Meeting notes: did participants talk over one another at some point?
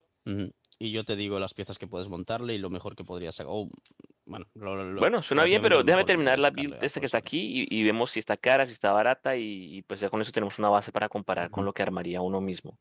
Yes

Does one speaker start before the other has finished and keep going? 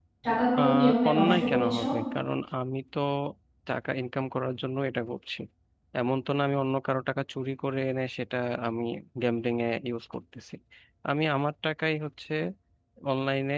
Yes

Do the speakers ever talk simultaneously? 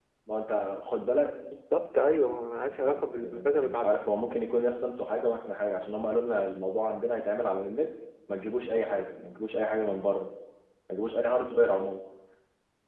Yes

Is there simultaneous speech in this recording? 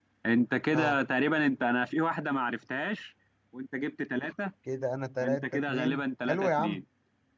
Yes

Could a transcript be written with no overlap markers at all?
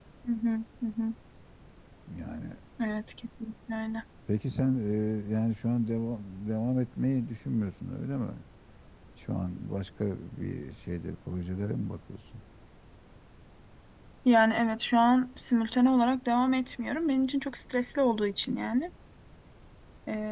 Yes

